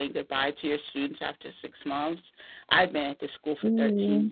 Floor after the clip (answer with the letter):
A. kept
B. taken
A